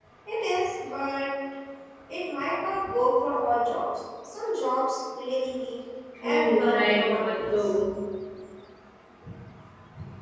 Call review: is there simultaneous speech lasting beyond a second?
Yes, from 6.2 s

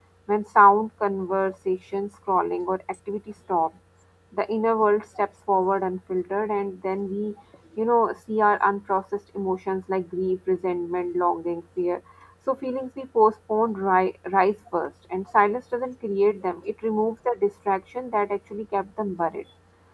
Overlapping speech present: No

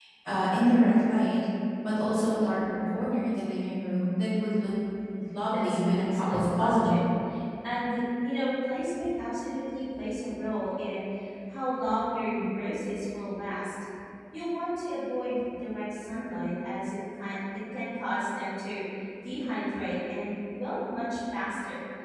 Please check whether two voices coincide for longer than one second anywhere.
Yes, from 5.5 s

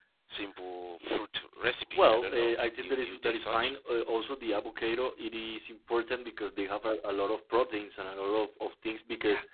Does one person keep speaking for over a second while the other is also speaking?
Yes, from 1.9 s

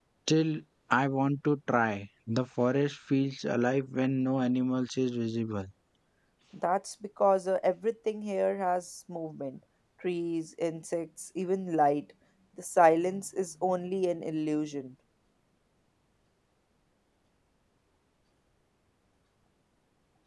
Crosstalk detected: No

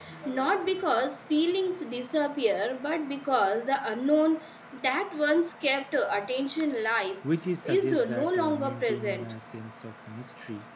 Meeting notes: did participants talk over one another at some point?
Yes, from 7.6 s

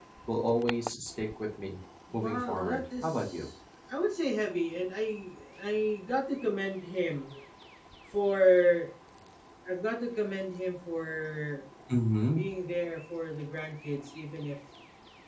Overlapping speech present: Yes, from 2.1 s

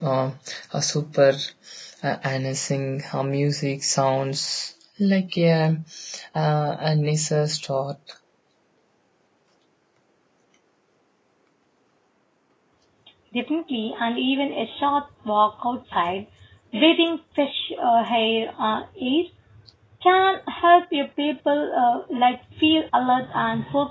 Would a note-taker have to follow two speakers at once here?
No

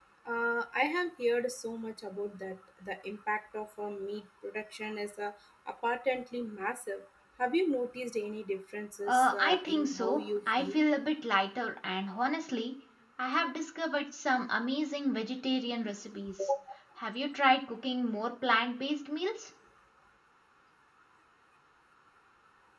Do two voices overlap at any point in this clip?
Yes, from 9.1 s

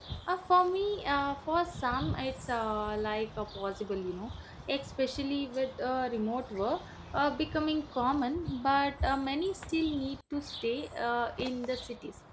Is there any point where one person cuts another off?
No

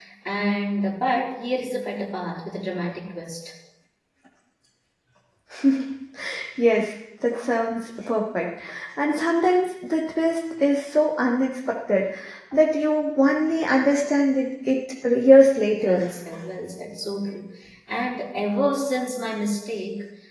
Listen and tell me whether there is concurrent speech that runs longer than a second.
No

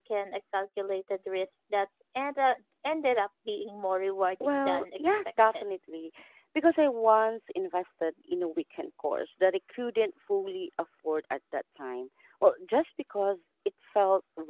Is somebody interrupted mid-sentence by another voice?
Yes, from 4.4 s

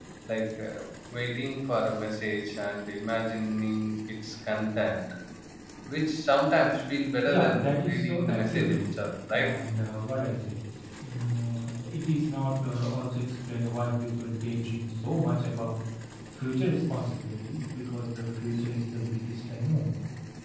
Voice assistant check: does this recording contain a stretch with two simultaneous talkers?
Yes, from 7.3 s

